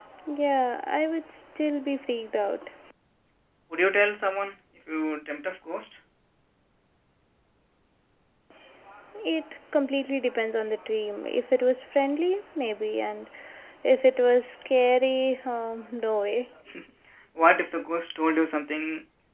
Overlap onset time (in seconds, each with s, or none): none